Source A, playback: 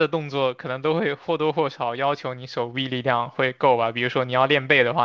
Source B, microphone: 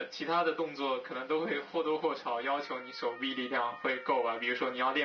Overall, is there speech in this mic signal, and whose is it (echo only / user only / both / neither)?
echo only